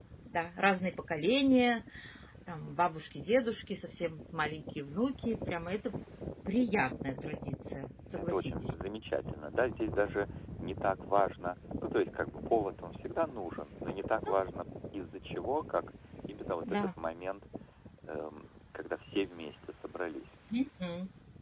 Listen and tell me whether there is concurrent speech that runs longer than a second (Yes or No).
No